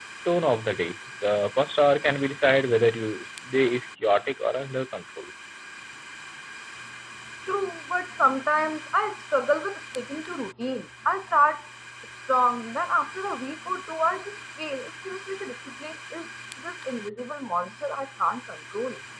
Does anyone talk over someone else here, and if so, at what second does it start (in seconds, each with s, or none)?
none